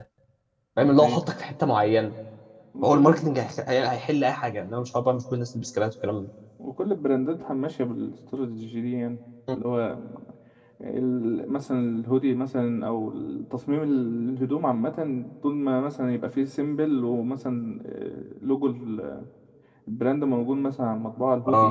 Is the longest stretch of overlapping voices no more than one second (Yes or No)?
Yes